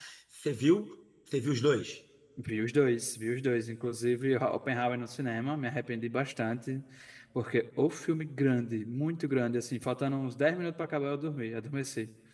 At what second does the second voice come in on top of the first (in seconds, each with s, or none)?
none